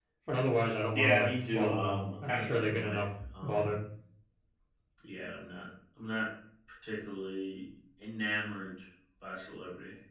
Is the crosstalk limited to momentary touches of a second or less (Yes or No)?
No